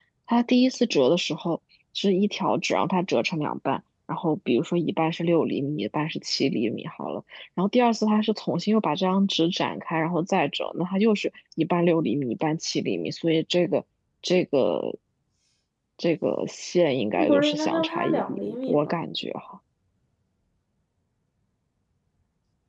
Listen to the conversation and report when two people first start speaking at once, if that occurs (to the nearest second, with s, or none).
17 s